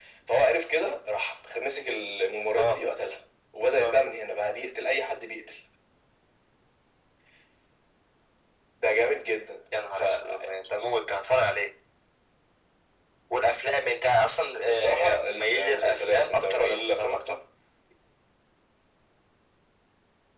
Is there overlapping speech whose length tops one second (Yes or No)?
Yes